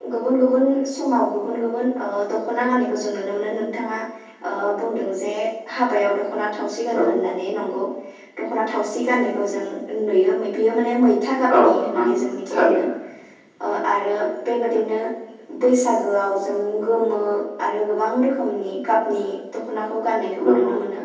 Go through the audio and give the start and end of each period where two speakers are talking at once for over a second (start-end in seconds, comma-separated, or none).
11.6-12.8